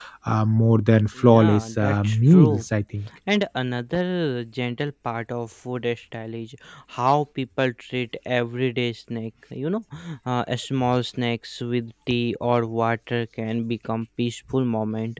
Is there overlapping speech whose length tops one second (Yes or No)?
Yes